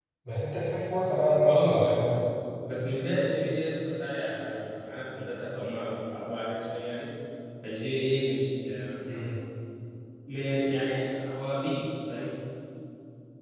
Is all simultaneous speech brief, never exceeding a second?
Yes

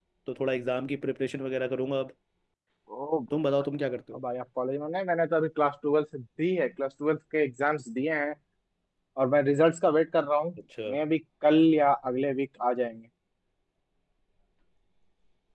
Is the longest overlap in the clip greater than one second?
No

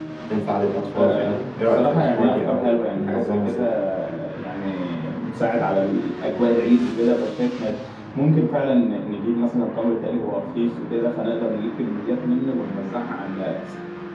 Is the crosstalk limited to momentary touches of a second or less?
No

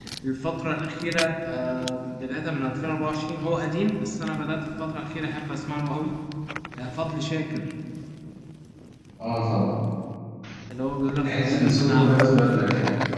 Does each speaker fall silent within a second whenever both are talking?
No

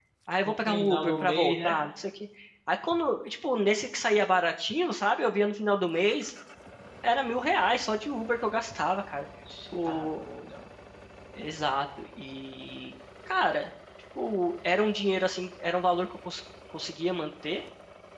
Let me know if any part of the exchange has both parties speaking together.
Yes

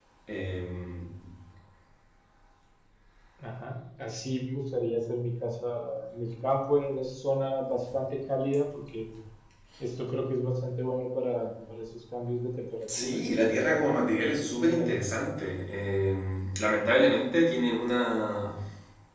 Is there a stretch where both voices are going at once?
Yes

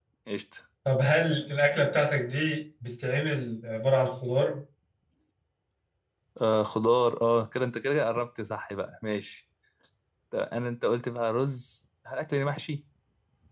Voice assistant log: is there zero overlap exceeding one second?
Yes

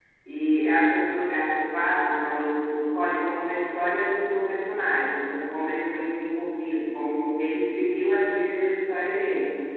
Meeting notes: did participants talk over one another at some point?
No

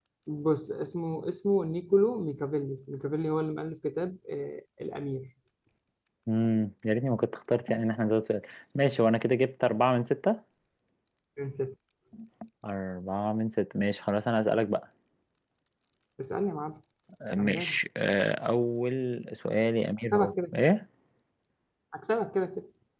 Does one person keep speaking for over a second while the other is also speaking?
No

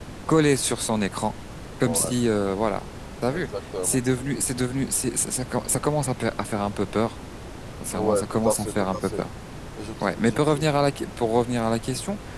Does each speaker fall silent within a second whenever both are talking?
No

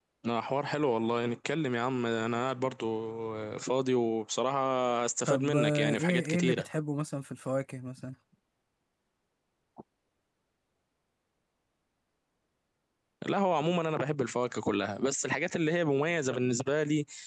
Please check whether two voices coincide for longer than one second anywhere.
Yes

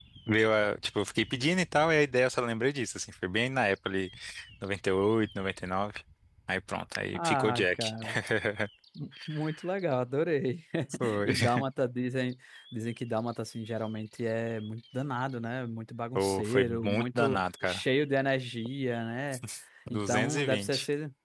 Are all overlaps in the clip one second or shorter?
No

